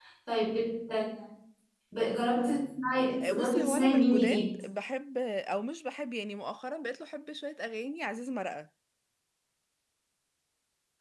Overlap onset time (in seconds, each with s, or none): 3.2 s